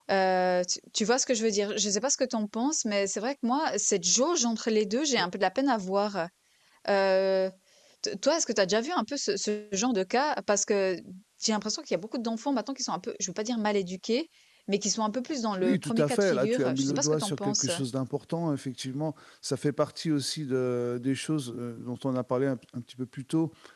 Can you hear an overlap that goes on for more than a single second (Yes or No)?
Yes